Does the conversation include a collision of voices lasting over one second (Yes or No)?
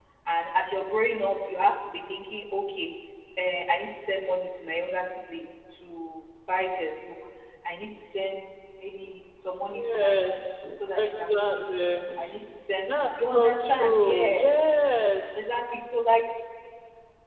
Yes